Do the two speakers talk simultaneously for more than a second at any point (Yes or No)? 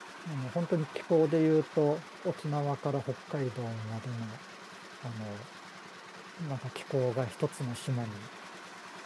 No